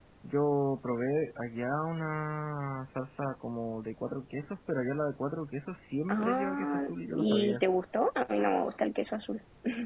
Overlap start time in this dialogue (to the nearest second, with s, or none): 6 s